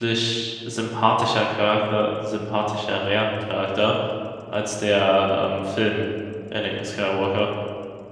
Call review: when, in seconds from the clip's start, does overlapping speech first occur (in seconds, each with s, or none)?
none